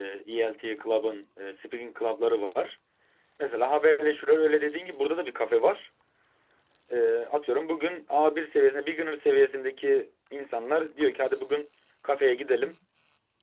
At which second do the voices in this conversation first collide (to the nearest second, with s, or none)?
none